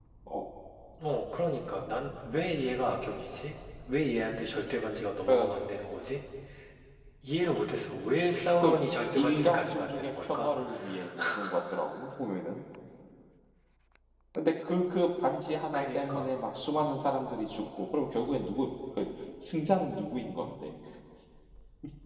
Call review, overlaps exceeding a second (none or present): present